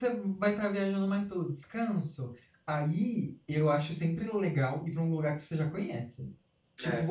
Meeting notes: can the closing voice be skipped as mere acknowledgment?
Yes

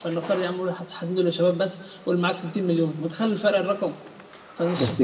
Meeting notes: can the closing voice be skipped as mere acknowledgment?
Yes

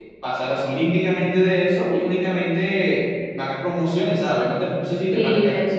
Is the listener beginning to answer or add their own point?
Yes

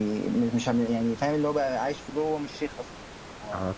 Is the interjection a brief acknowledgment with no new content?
No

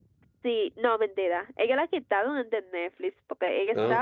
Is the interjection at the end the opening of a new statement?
No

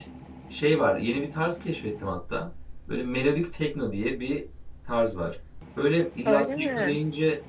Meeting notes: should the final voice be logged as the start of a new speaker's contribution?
No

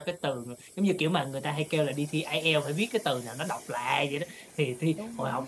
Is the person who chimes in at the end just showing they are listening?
Yes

